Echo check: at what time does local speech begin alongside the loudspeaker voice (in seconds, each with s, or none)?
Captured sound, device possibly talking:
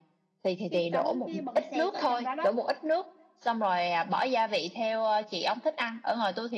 0.7 s